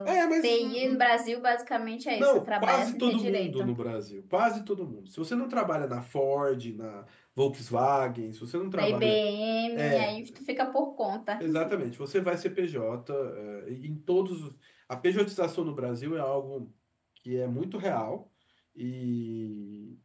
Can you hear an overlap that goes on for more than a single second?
Yes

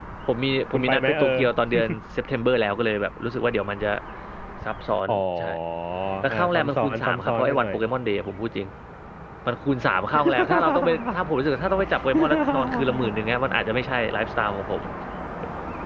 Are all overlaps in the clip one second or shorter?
No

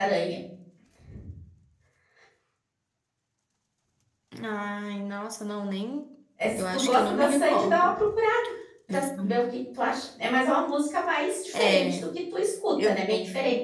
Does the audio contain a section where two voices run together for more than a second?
Yes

